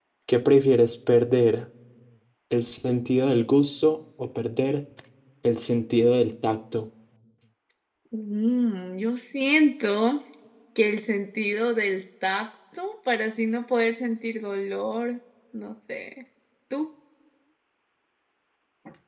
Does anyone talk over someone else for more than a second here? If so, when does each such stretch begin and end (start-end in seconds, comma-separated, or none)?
none